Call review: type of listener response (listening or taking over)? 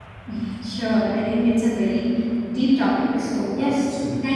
listening